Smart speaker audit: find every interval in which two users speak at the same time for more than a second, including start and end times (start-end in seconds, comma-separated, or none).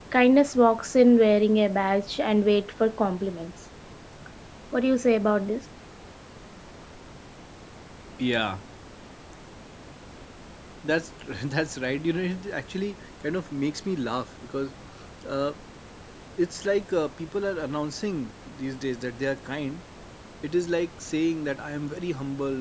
none